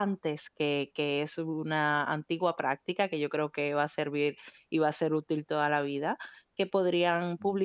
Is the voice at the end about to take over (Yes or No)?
No